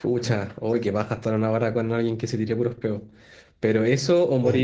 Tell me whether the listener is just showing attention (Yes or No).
Yes